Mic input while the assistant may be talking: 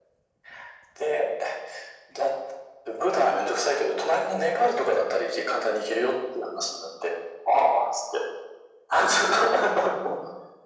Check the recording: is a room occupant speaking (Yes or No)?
No